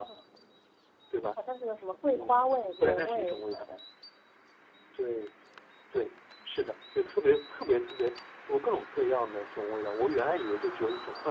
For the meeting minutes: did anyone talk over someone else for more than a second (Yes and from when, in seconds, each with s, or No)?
Yes, from 2.1 s